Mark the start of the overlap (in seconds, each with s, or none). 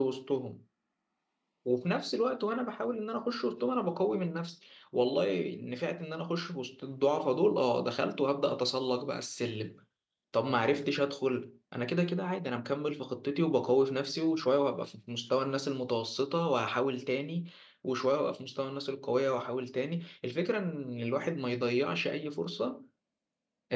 none